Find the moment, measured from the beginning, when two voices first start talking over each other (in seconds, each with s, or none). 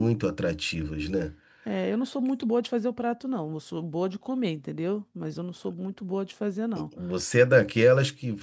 none